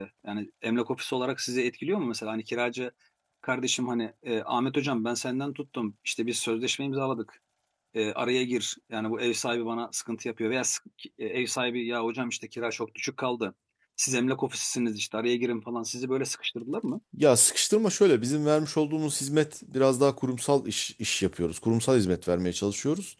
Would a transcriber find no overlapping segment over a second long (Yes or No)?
Yes